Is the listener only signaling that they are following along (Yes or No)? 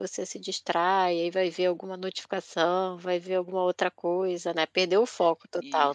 No